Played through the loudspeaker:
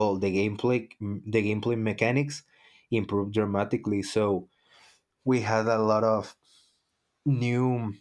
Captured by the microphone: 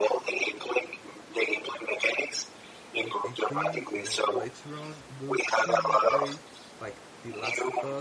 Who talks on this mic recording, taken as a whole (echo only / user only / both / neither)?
both